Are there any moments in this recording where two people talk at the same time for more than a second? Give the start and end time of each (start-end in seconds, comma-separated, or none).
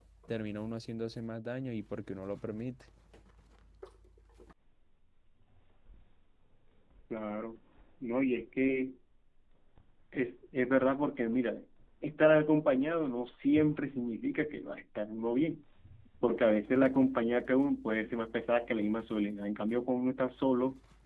none